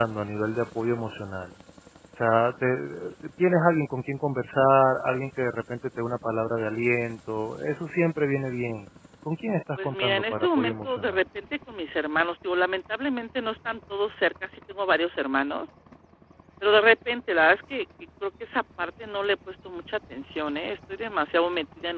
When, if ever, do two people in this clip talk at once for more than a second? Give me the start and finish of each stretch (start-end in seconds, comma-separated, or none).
9.8-11.2